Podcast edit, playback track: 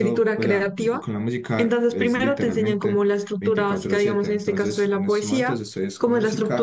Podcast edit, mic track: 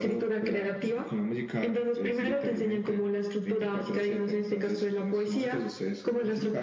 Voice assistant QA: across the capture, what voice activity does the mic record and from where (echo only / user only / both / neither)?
echo only